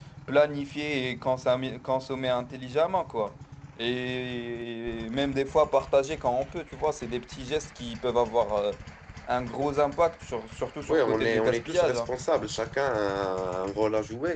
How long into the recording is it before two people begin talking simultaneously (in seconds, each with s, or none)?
10.9 s